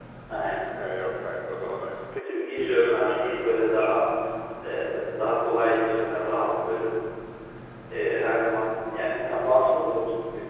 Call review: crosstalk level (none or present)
present